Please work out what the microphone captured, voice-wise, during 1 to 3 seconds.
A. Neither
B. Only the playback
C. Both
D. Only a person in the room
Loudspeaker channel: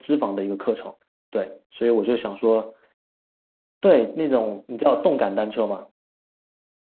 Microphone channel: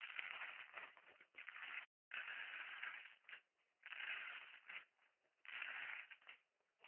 A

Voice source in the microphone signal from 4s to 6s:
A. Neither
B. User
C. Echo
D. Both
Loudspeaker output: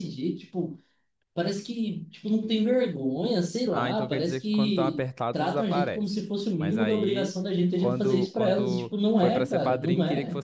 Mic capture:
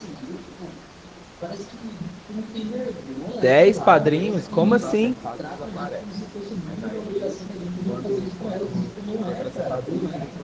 D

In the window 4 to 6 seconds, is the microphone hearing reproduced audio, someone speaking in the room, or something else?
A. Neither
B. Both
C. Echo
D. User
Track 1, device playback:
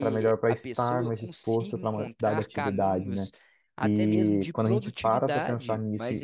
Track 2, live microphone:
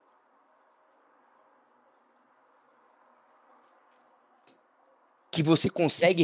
D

